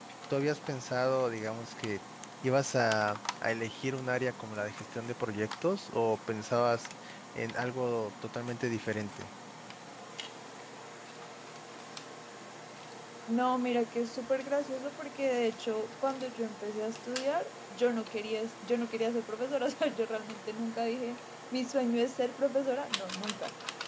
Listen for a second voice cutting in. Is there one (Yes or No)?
No